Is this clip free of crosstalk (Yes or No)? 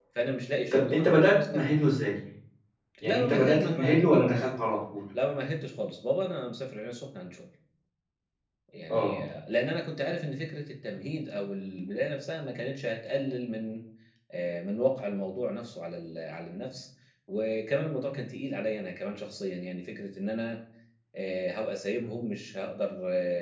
No